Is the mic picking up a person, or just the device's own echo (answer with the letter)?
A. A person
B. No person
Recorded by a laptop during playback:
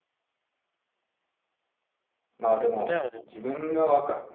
A